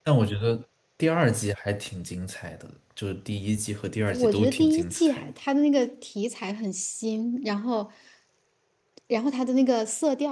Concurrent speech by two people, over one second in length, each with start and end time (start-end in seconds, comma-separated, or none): 4.1-5.3